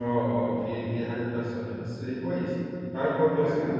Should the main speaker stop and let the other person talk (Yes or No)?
No